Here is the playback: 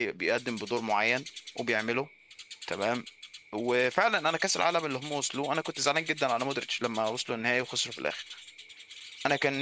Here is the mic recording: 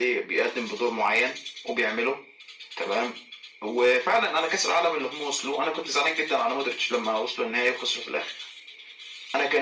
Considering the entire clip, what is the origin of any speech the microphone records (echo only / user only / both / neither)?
echo only